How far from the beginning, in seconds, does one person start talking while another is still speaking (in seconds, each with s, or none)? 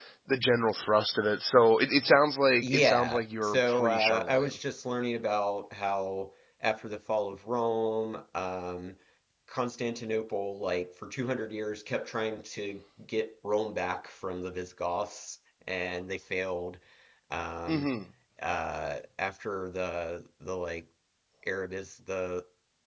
2.6 s